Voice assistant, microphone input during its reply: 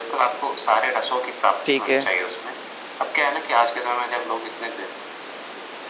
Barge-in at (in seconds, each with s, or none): 1.6 s